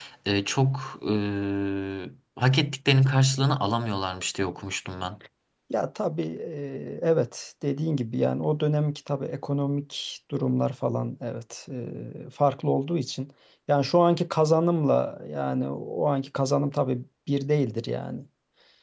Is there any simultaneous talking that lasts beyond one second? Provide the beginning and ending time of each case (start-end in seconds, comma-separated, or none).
none